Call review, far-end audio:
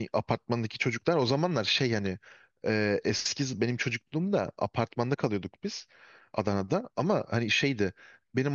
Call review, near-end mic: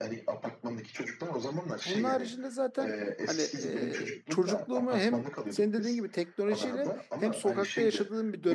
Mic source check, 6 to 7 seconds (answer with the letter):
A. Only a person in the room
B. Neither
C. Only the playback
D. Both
D